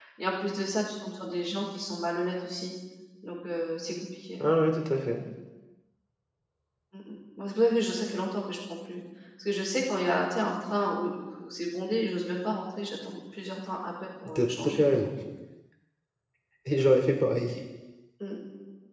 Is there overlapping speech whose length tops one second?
No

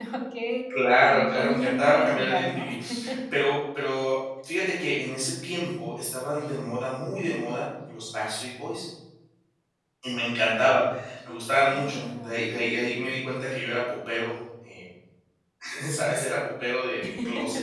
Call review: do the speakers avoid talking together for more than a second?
No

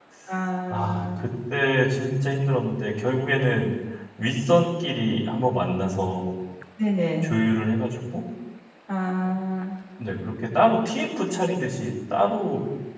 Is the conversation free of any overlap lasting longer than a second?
Yes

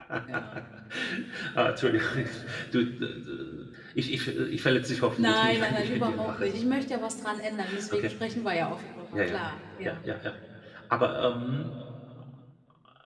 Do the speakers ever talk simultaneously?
Yes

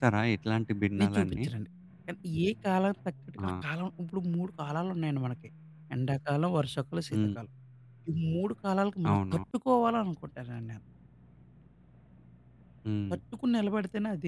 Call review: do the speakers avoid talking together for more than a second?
Yes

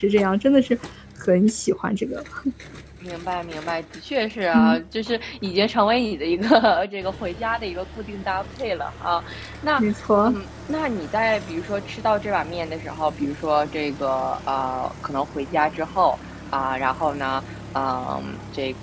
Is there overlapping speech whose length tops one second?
No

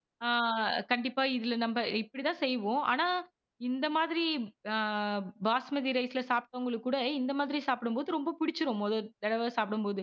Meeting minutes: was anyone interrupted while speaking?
No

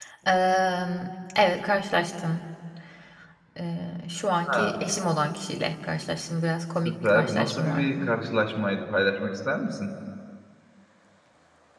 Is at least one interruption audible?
Yes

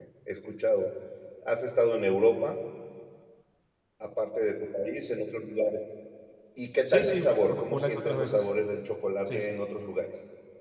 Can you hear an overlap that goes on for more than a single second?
Yes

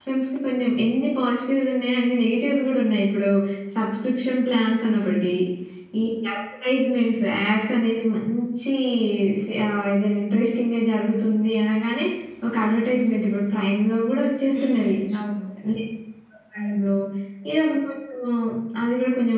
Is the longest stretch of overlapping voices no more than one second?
Yes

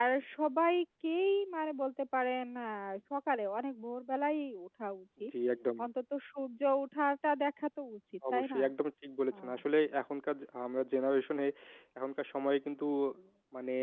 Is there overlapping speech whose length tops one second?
No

